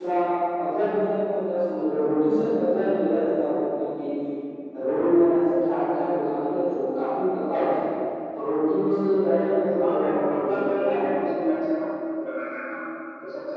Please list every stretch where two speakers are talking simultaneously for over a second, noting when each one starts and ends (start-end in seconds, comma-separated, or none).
9.8-11.1